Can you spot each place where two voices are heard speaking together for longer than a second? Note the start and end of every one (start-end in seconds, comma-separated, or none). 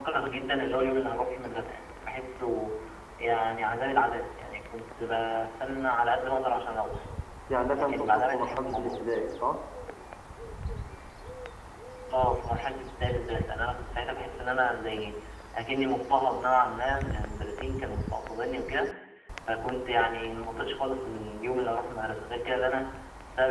7.7-9.1